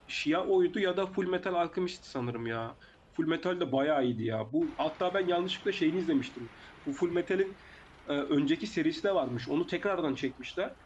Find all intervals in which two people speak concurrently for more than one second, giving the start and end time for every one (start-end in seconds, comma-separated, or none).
none